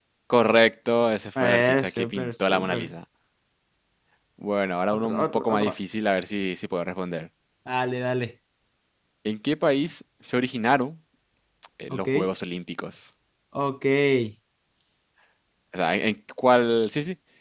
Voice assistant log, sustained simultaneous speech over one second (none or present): present